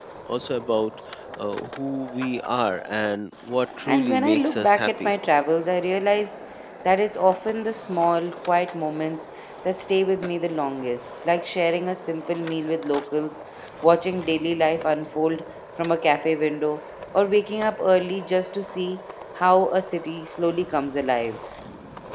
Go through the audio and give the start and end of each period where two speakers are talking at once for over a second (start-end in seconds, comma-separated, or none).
3.9-5.1